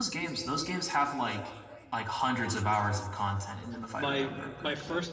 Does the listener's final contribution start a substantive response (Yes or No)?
Yes